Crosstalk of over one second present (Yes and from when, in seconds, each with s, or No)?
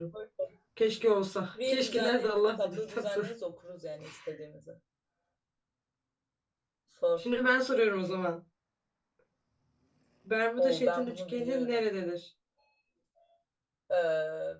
Yes, from 1.7 s